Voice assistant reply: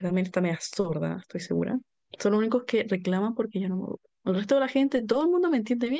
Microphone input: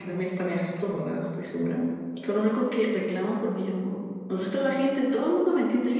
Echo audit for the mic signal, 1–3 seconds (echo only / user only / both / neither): echo only